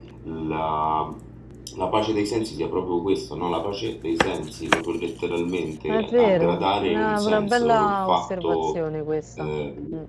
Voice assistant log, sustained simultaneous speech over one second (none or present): present